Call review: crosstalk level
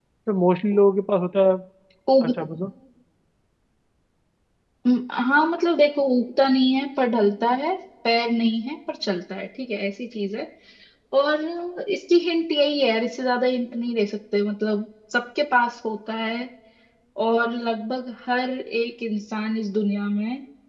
none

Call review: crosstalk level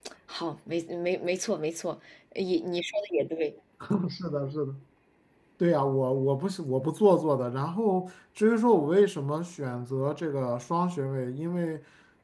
none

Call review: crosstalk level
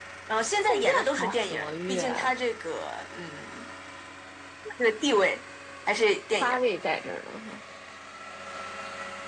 present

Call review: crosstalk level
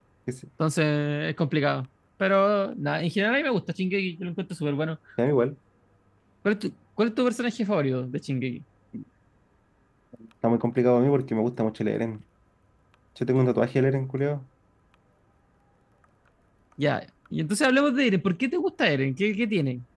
none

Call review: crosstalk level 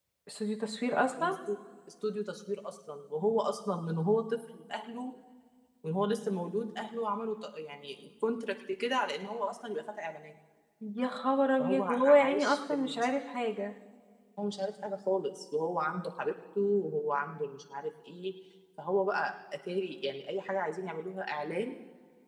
present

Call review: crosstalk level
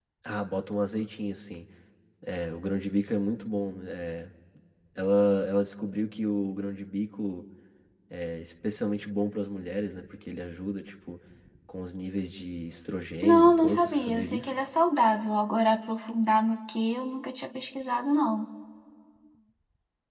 present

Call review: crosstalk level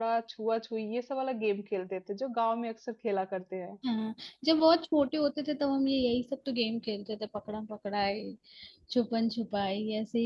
none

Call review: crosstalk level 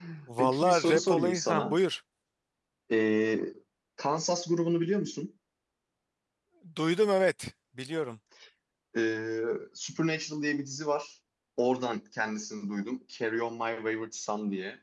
present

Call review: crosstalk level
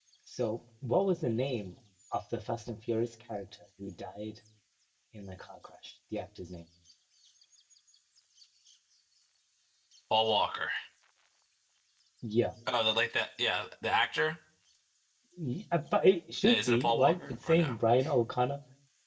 present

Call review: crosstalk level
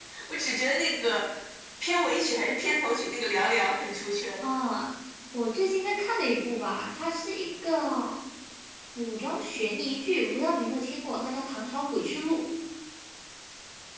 none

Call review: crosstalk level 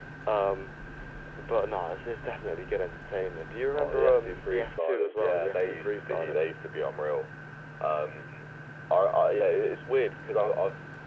present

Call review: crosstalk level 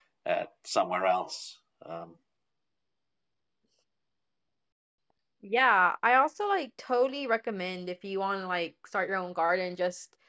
none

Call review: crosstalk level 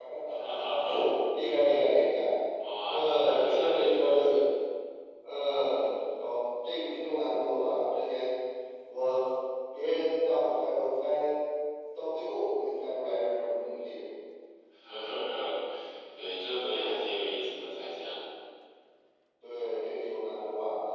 present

